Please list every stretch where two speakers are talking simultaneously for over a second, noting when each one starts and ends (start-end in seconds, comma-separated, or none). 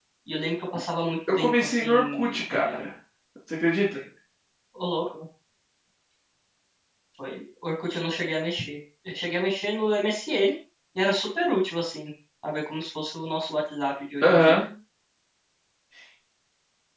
1.3-2.9